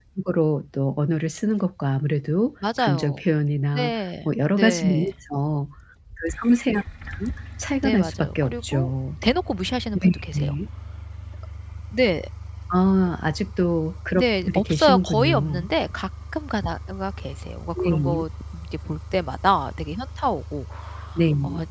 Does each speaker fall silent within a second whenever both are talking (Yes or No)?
No